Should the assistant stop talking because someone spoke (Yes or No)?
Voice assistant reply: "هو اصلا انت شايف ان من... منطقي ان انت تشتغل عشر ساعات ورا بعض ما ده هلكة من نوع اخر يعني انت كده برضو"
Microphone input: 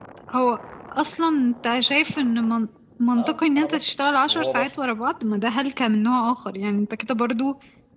Yes